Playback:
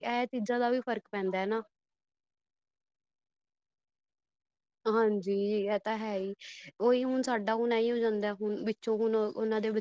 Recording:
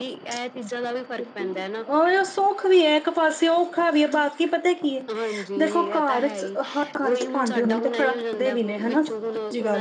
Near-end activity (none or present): present